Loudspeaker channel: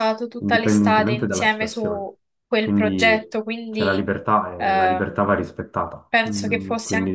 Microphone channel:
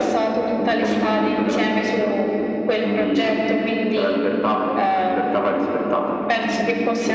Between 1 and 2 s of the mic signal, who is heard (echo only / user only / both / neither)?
echo only